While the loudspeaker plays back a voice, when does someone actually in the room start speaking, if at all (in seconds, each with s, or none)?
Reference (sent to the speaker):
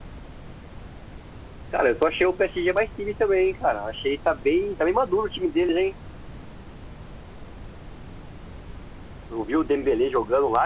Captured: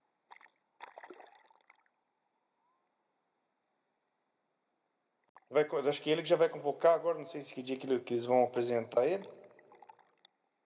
5.5 s